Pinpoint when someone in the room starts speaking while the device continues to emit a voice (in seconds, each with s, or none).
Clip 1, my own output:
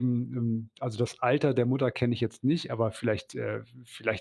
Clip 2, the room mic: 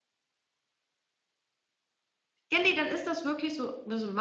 2.5 s